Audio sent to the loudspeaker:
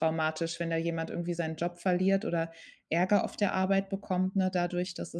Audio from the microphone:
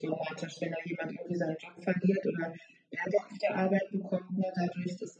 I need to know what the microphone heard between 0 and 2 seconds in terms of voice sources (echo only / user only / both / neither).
echo only